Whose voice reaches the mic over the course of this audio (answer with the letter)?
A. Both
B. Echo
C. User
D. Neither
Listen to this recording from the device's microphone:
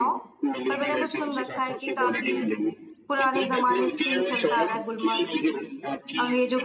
A